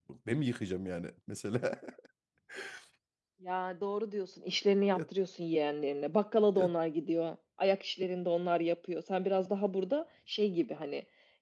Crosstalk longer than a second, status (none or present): none